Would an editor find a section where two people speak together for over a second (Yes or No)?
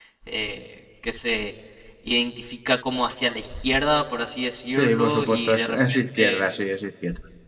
Yes